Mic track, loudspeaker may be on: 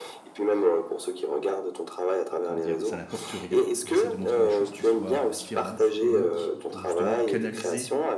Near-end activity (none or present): present